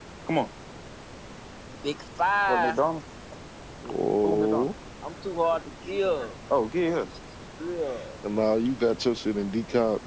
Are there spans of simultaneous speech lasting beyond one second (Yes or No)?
No